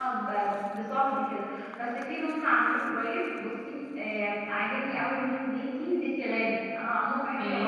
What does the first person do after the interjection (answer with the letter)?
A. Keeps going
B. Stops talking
B